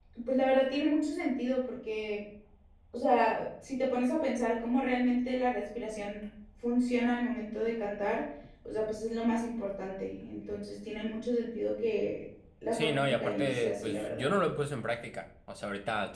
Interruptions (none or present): present